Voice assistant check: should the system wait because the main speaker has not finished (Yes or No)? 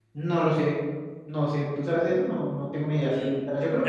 No